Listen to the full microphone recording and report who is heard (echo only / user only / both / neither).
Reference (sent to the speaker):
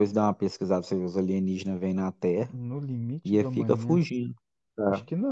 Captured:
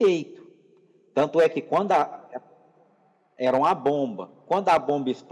user only